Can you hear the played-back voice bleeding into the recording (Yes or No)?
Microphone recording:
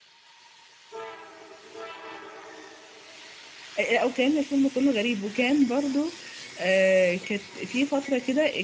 No